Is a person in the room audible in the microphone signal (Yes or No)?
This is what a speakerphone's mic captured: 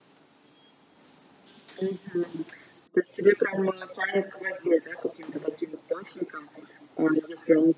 No